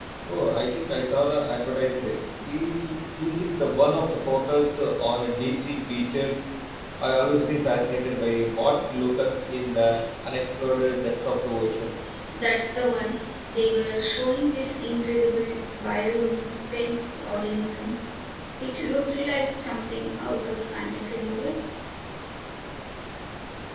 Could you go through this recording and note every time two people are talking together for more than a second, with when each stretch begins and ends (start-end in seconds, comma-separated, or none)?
none